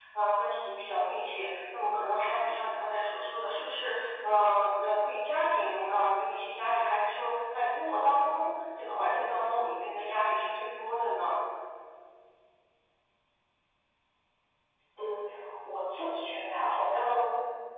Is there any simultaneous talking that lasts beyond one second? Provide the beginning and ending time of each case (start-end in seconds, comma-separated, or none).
none